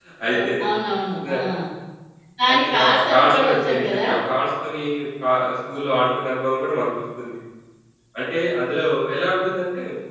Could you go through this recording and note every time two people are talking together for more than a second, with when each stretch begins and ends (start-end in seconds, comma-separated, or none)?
2.5-4.1